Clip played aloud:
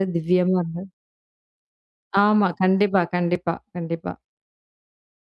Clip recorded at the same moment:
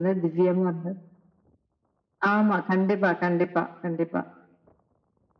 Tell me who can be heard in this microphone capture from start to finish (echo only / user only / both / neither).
echo only